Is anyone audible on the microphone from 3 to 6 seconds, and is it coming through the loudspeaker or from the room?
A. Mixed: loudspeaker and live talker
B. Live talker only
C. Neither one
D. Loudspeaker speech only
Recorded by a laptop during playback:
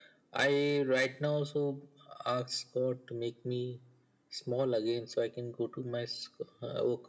D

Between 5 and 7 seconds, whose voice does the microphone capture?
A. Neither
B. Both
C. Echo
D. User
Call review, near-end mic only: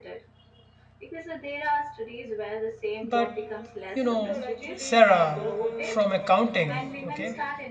B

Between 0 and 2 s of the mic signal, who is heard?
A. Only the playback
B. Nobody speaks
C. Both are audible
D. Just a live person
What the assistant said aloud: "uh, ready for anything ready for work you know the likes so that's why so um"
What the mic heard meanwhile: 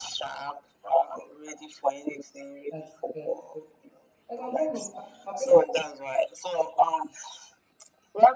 A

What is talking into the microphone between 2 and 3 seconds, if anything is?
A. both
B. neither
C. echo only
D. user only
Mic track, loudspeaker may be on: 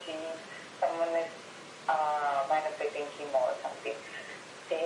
C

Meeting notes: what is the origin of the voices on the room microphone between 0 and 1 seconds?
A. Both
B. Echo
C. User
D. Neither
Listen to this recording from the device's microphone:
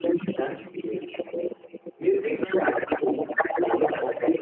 A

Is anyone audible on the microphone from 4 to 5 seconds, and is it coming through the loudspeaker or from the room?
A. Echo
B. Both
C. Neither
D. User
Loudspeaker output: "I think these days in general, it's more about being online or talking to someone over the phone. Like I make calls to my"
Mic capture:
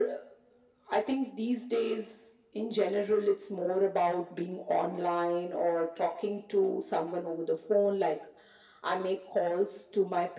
A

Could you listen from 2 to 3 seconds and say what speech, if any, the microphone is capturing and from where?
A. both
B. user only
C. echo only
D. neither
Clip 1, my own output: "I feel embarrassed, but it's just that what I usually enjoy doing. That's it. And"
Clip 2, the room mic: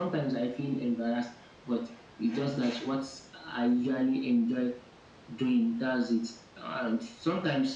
C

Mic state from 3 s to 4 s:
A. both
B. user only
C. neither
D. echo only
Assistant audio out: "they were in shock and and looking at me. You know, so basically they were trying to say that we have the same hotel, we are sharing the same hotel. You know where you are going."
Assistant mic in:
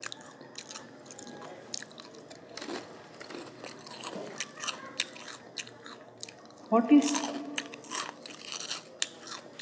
C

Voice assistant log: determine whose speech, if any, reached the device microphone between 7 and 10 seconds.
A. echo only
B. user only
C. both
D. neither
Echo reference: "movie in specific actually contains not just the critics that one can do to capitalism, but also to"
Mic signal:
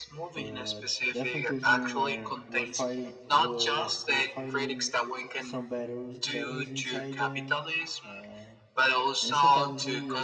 C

